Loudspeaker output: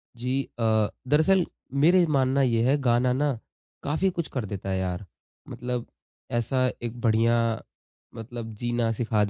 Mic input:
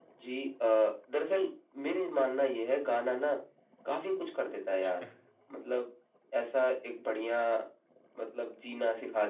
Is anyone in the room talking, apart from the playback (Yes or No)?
Yes